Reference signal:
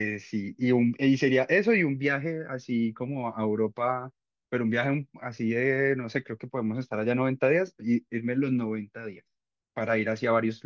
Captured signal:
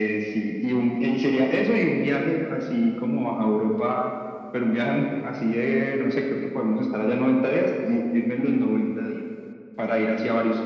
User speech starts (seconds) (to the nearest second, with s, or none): none